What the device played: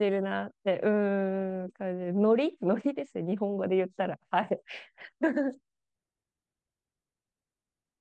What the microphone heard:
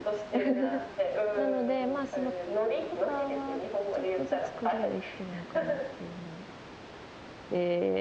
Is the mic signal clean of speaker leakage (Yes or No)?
No